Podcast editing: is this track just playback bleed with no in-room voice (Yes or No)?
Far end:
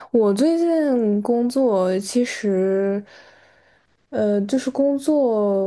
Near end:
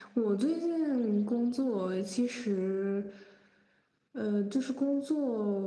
Yes